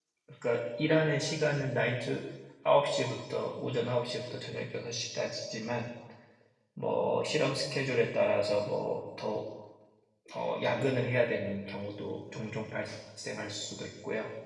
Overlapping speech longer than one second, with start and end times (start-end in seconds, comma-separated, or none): none